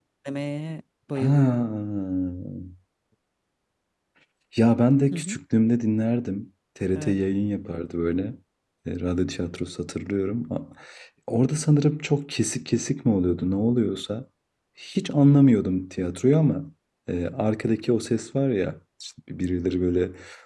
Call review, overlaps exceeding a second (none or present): none